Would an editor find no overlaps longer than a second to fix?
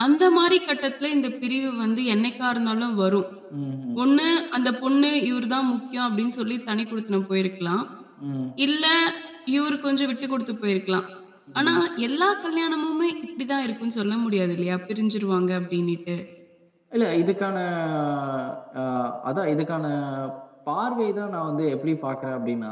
Yes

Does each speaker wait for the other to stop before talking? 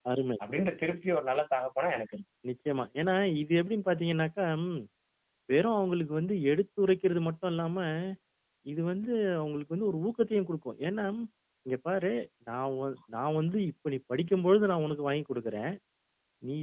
Yes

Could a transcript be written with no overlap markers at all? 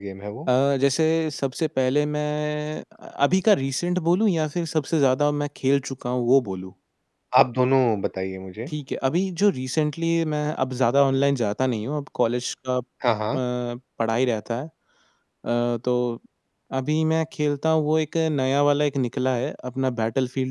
Yes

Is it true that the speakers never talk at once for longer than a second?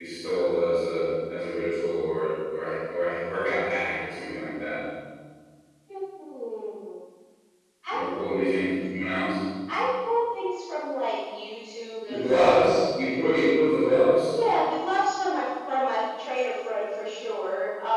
Yes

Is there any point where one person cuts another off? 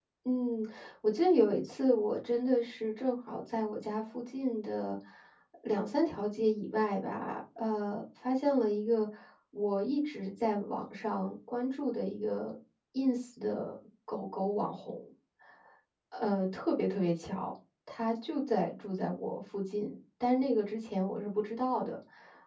No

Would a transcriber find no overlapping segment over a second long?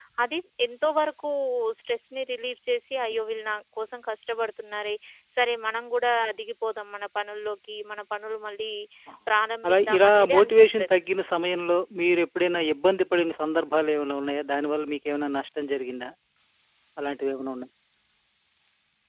No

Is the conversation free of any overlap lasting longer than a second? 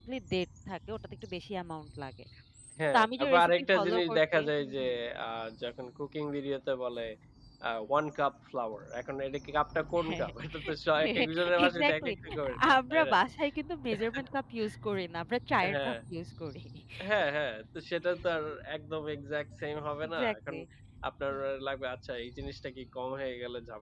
No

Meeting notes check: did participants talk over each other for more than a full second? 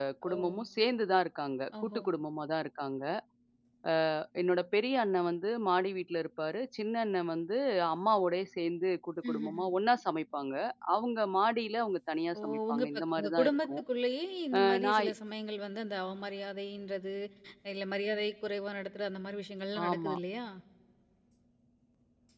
Yes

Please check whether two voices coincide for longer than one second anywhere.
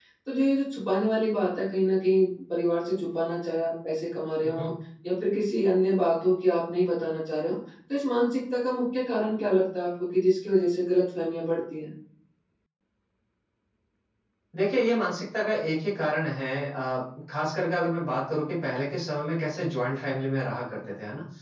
No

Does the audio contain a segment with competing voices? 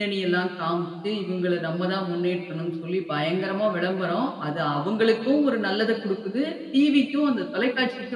No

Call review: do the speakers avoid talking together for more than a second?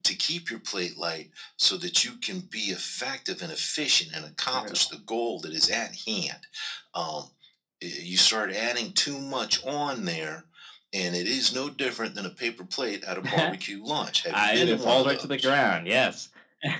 No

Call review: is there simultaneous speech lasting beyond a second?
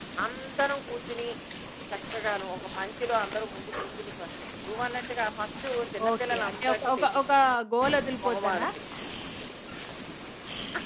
Yes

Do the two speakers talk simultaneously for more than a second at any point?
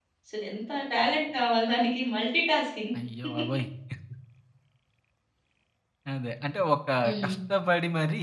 No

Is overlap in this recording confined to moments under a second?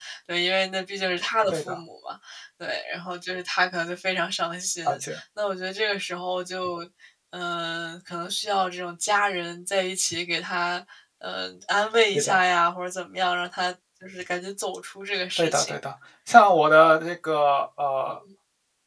Yes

